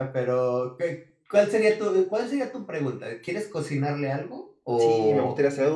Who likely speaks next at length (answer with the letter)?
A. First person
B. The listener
B